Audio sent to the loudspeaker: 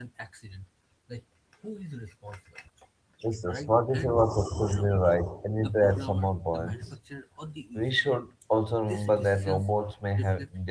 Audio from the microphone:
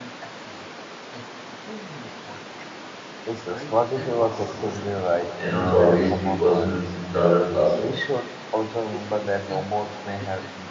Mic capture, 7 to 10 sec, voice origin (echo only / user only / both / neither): both